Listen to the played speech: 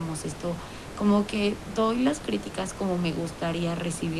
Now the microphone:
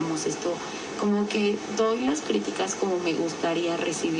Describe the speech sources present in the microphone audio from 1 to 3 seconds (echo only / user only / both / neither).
echo only